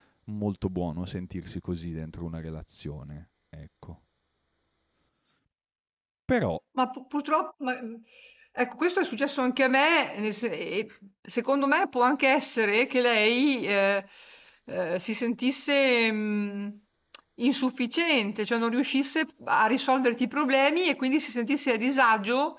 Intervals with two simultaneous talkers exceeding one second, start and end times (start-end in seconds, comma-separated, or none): none